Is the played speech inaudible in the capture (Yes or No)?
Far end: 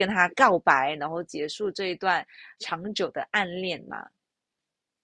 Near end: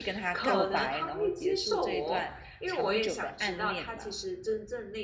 No